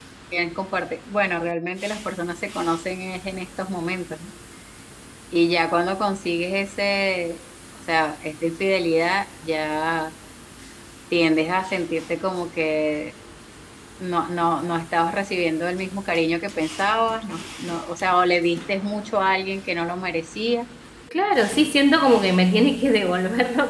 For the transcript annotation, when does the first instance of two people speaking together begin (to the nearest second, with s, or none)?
none